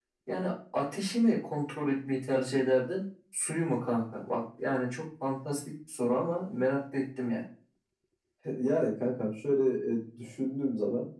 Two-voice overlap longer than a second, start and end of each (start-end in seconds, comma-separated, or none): none